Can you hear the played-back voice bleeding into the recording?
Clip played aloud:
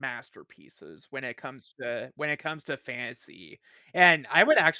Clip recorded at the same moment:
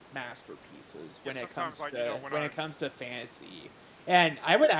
Yes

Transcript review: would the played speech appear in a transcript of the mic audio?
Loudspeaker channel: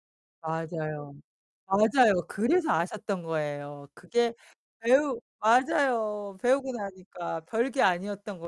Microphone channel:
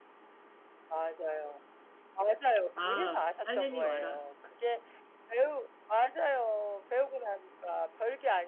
Yes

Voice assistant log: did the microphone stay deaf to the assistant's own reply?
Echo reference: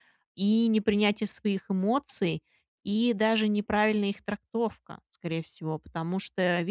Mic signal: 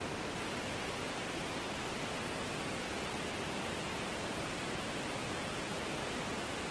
Yes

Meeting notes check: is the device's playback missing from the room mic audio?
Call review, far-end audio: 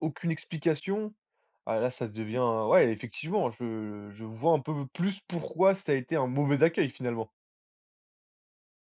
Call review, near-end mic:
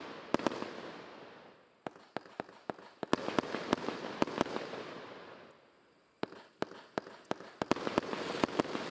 Yes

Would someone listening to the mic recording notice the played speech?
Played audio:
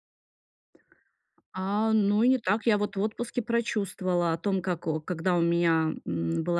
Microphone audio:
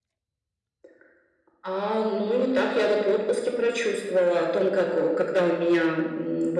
Yes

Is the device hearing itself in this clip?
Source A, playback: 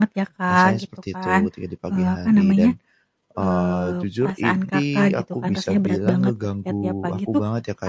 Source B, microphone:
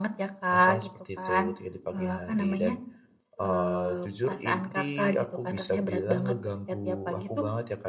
Yes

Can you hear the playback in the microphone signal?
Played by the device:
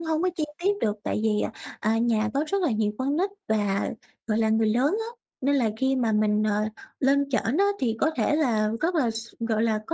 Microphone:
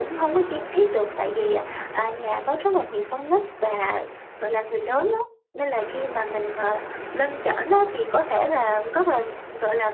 Yes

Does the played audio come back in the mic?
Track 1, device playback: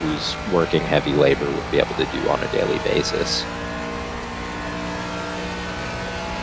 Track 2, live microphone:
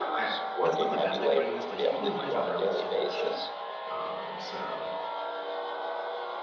Yes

